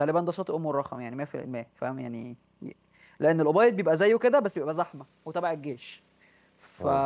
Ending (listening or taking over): listening